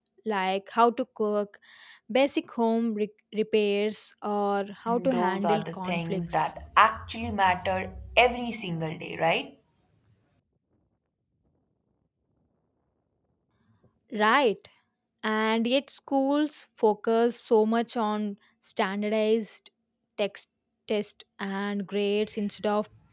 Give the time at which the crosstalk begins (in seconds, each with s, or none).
4.9 s